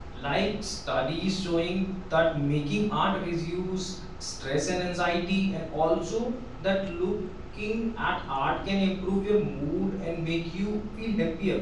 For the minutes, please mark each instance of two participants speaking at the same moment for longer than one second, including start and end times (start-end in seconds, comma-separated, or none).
none